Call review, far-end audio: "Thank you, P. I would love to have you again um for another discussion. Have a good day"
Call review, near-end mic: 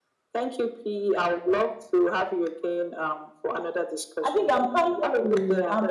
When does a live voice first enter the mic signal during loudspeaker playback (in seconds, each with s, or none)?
4.2 s